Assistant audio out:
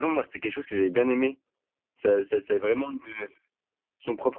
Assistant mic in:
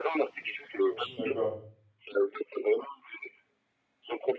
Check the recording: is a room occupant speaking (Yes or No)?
Yes